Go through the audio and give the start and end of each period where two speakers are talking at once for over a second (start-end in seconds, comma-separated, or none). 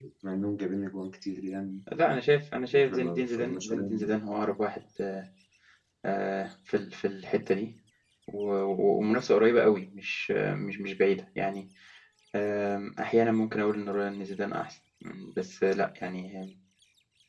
2.7-4.1